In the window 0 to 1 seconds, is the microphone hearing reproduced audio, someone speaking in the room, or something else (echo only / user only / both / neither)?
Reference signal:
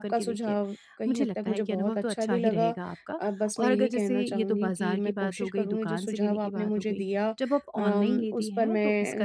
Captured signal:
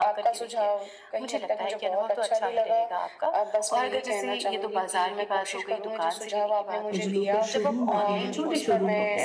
echo only